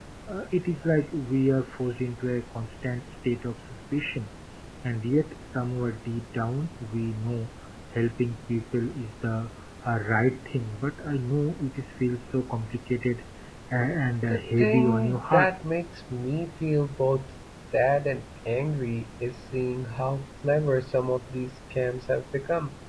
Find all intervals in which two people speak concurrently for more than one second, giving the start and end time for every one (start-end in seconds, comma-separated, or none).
14.3-15.5